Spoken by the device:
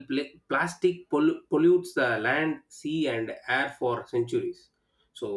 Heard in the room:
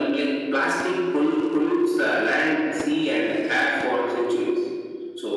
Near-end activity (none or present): none